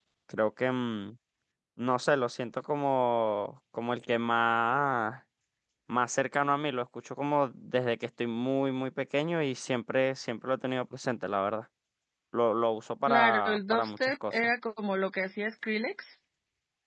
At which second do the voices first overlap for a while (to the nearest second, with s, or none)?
13 s